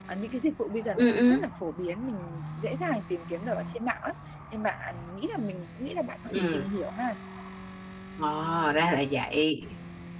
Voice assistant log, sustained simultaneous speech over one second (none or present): none